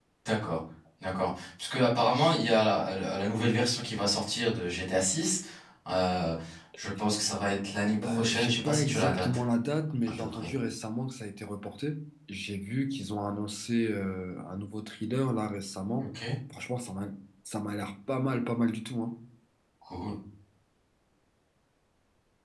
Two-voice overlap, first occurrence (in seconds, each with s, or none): 8.0 s